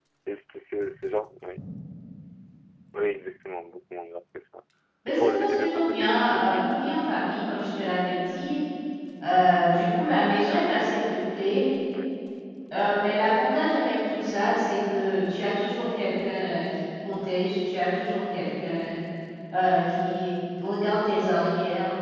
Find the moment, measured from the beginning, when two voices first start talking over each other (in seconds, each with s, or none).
5.1 s